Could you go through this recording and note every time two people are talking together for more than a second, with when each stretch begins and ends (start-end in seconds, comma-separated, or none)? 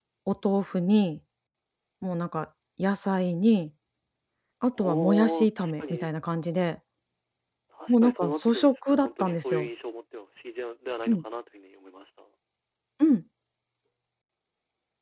4.8-6.1, 7.9-9.7